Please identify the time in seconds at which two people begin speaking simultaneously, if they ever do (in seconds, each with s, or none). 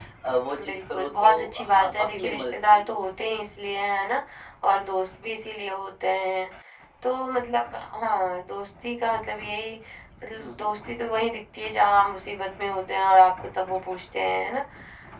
0.7 s